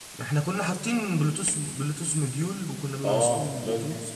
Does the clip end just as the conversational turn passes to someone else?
Yes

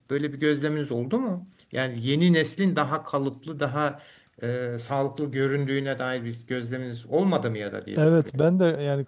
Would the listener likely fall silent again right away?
No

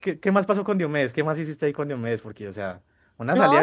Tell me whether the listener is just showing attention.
No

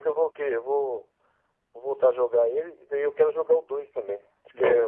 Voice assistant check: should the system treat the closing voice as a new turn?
No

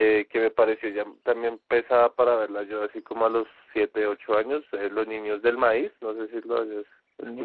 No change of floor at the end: No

